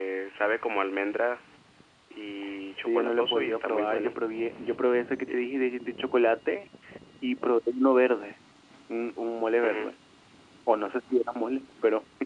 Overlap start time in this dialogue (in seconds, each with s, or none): 2.8 s